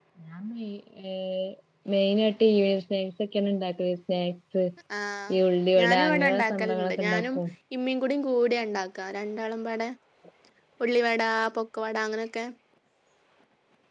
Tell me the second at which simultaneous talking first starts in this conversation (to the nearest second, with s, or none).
6 s